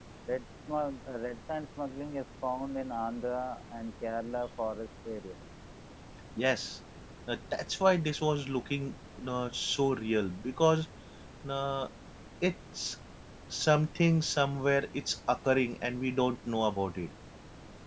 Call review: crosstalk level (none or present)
none